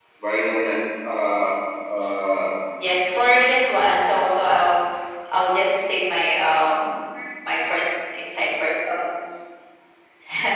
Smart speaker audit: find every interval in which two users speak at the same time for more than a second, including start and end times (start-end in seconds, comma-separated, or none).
none